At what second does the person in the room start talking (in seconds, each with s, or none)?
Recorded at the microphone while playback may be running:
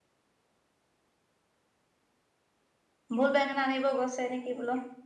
3.2 s